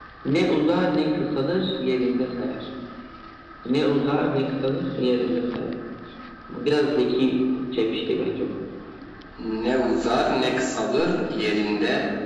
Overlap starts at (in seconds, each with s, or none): none